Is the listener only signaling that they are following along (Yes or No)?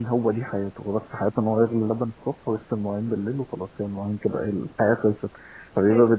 Yes